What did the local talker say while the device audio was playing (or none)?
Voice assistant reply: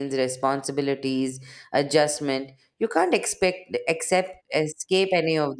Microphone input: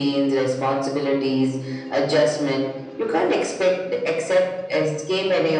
none